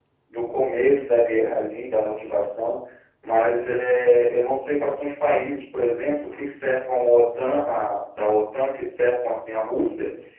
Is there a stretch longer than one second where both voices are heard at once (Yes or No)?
No